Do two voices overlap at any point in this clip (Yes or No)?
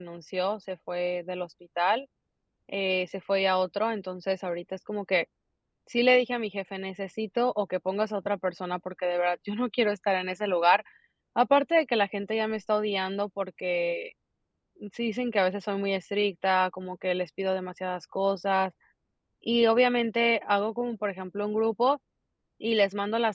No